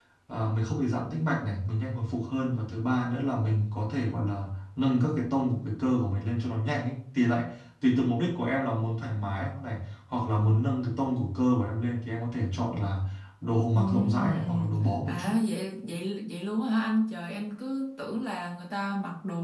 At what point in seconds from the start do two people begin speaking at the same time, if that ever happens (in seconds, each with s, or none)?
13.8 s